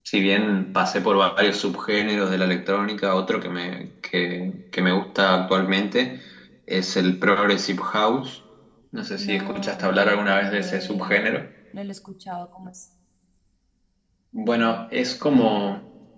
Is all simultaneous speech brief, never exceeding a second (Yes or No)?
No